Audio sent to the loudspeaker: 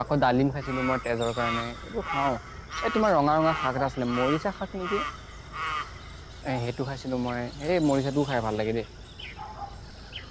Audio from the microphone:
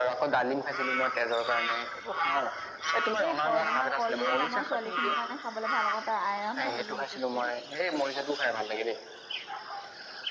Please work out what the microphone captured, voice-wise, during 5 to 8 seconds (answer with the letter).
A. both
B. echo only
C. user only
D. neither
A